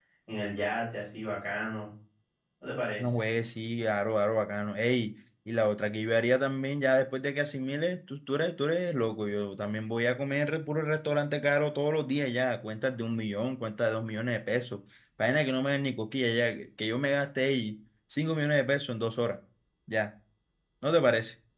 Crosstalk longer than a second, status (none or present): none